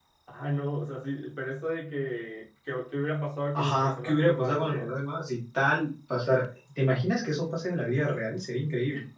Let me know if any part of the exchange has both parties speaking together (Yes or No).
Yes